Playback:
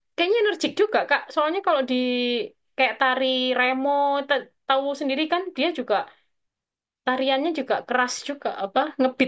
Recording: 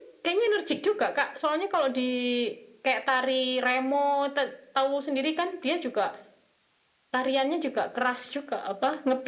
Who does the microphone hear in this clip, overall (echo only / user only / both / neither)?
echo only